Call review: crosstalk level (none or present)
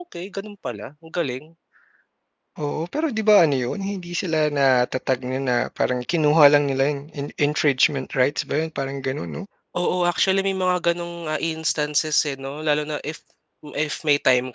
none